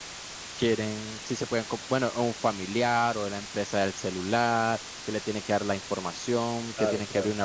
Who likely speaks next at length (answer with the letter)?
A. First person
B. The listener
A